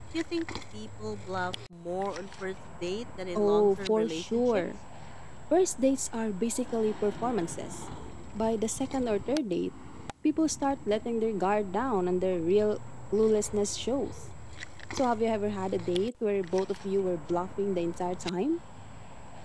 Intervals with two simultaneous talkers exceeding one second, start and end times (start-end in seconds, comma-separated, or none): 3.4-4.6